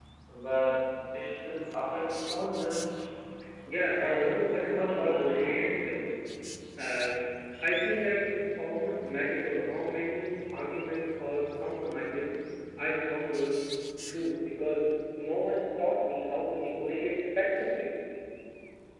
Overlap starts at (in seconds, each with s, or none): 4.0 s